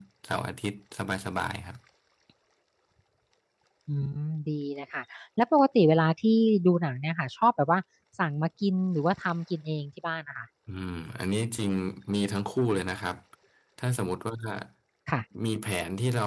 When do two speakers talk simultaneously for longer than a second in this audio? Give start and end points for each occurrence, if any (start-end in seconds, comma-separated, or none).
none